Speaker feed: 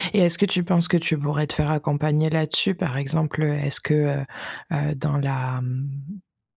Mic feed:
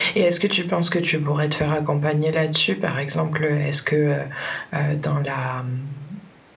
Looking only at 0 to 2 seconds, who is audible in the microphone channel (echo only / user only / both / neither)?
echo only